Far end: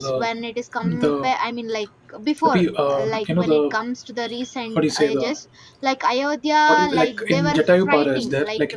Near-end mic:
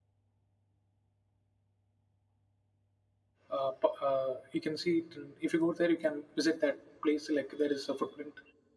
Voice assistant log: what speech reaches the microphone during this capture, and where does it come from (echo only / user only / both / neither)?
user only